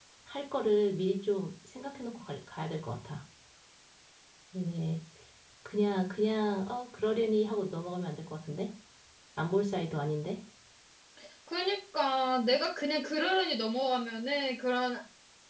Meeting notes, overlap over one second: none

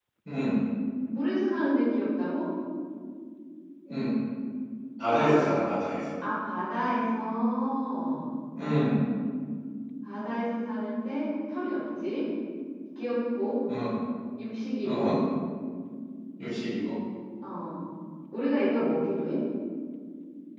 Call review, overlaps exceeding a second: none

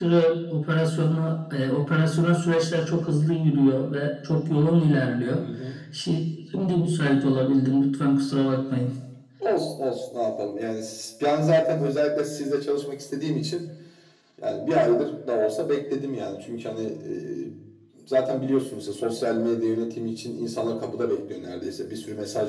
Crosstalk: none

